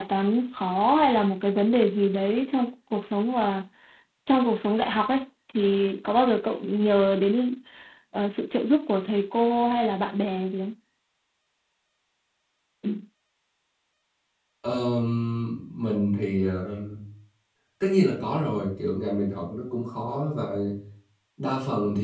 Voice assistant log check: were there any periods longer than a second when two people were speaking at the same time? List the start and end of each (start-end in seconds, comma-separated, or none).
none